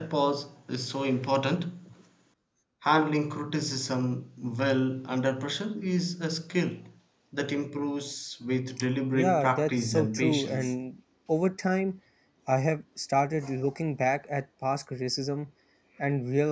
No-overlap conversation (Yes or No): No